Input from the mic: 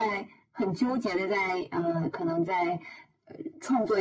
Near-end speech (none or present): none